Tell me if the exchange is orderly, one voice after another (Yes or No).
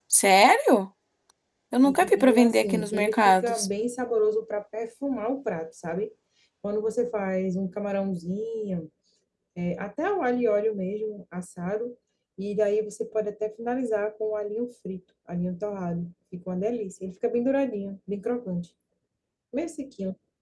No